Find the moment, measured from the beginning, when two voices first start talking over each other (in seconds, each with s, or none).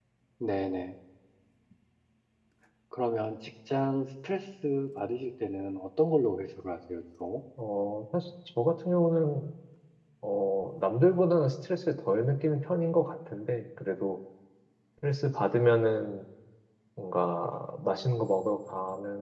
none